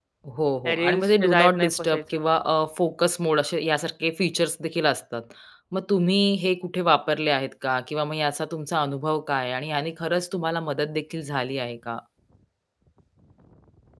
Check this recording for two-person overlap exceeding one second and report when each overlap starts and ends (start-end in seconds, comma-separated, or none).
0.6-2.2